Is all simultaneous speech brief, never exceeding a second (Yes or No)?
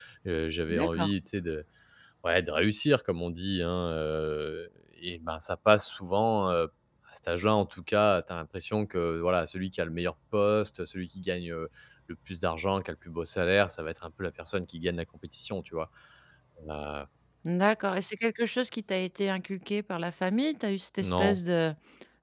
Yes